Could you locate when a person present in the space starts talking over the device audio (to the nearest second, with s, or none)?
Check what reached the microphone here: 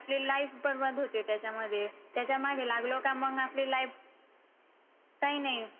none